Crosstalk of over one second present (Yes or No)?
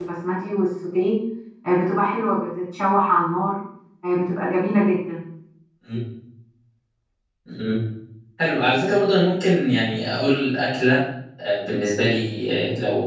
No